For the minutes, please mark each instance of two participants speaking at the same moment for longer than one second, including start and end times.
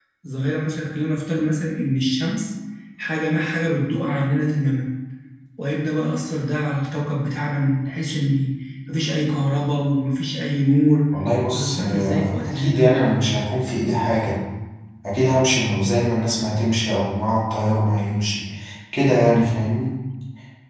11.5-12.8

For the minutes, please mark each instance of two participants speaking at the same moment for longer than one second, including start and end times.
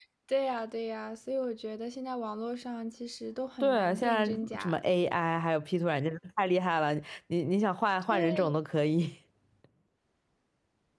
3.6-4.8

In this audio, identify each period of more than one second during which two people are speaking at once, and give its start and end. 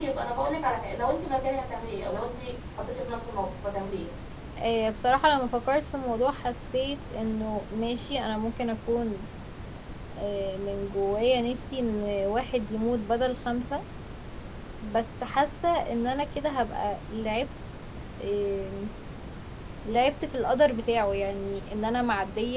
none

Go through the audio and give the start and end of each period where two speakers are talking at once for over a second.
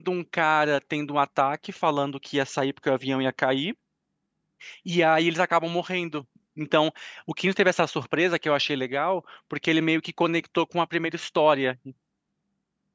none

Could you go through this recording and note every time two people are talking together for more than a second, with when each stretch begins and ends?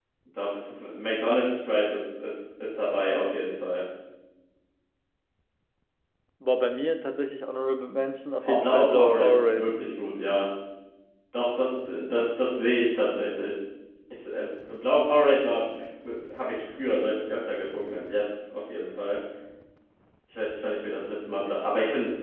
8.4-9.7

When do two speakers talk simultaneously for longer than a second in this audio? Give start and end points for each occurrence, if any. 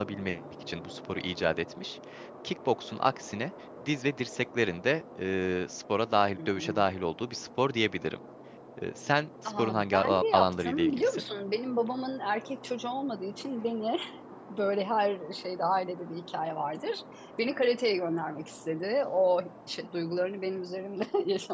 9.4-11.2

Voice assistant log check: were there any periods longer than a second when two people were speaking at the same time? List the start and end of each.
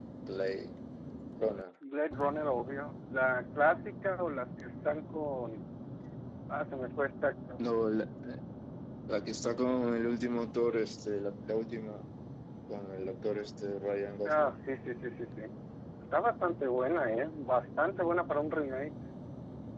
none

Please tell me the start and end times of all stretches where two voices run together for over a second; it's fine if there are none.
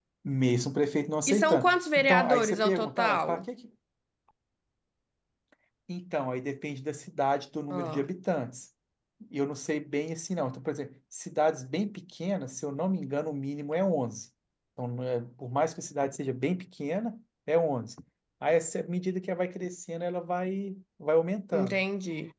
1.3-3.5

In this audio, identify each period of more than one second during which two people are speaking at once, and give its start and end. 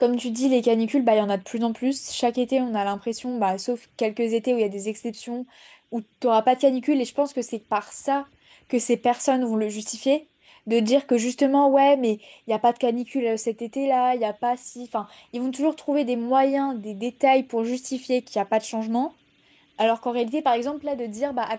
none

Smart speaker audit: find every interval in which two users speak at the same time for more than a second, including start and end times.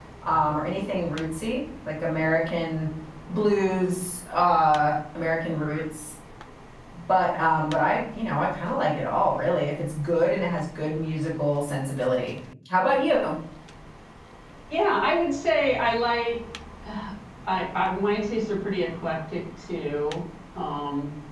none

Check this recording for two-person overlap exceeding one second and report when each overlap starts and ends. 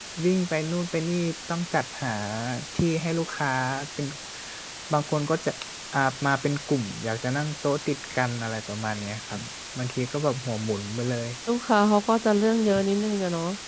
none

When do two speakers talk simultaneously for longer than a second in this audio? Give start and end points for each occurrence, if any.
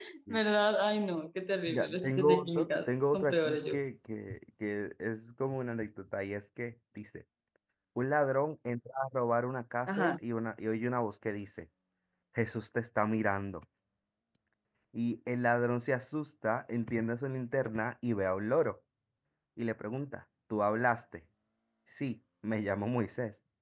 1.7-3.7

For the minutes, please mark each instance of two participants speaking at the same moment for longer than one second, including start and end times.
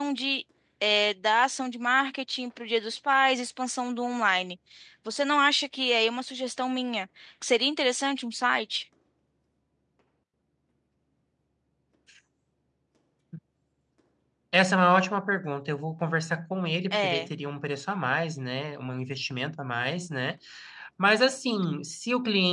none

